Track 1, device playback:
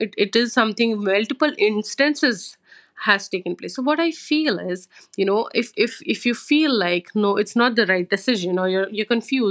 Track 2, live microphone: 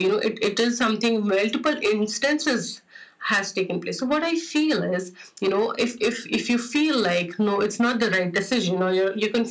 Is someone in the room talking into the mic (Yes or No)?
No